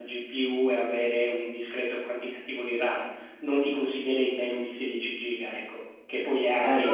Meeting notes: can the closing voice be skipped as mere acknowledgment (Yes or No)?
No